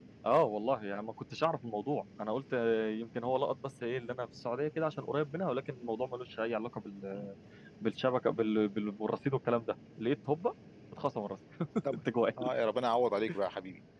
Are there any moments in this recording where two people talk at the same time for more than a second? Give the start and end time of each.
none

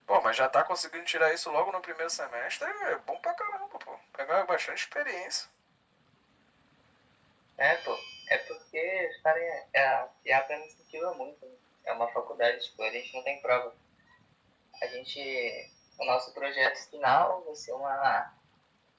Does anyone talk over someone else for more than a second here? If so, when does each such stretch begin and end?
none

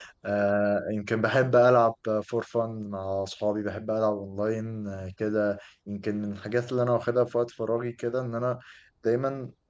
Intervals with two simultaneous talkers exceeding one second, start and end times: none

